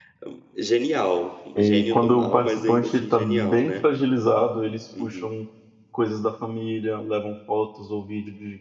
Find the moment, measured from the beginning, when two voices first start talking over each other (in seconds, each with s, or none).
1.6 s